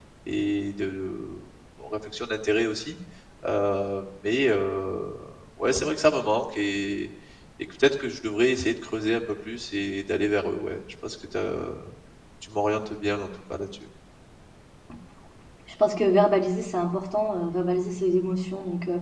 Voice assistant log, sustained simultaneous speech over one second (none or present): none